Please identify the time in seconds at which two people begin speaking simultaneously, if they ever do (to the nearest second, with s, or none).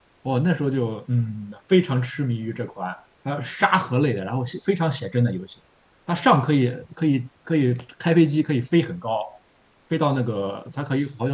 none